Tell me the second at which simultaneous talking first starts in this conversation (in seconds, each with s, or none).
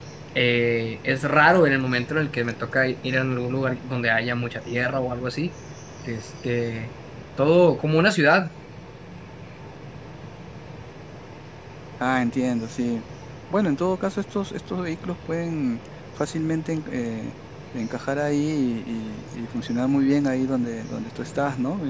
none